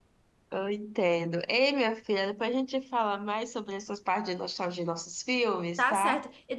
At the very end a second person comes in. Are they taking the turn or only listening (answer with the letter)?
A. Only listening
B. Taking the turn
B